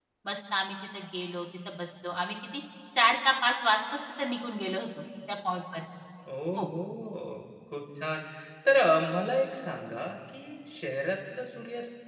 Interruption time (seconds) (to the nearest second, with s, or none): none